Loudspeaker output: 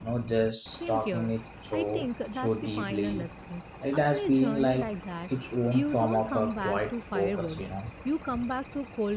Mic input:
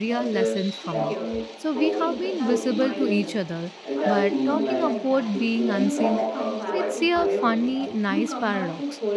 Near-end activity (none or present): present